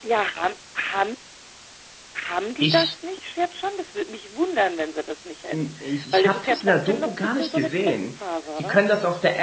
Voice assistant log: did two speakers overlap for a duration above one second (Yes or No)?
Yes